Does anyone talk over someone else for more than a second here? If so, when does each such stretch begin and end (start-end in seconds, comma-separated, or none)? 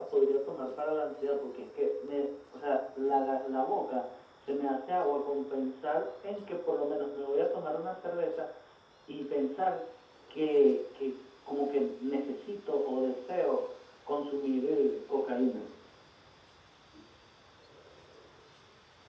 none